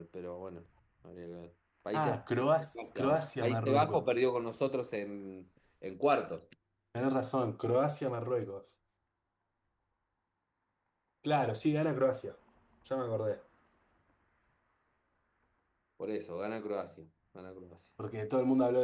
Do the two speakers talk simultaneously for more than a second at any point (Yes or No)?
Yes